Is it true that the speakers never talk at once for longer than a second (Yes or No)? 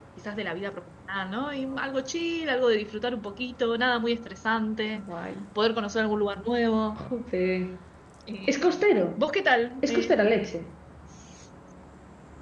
Yes